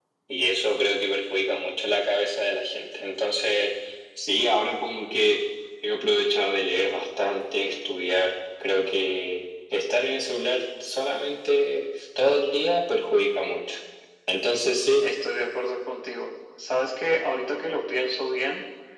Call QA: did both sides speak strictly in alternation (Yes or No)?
Yes